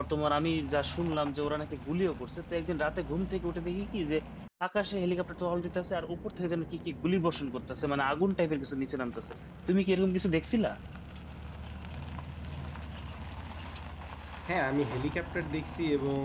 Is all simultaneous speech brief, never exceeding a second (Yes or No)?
Yes